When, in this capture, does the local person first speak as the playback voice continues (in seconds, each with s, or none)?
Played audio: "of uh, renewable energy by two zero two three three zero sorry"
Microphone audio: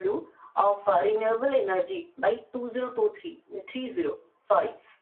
none